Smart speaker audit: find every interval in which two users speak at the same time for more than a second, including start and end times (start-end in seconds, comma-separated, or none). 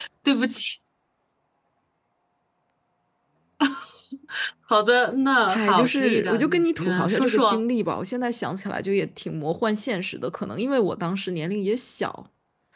5.5-7.6